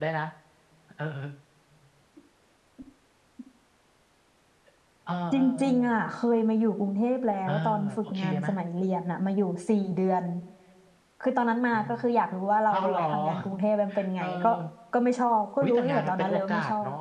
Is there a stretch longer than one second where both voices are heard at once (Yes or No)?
Yes